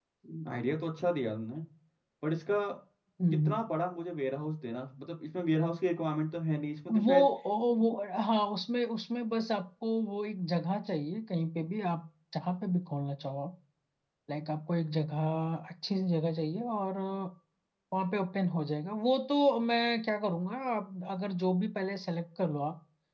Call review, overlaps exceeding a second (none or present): none